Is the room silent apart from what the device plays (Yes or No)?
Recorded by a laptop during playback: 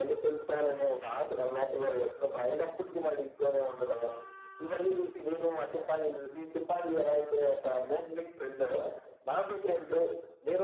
Yes